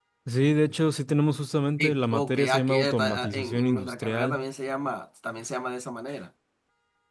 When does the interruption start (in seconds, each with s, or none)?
1.8 s